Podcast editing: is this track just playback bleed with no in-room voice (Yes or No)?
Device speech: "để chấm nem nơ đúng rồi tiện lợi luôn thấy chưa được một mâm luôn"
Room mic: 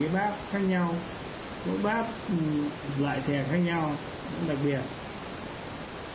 No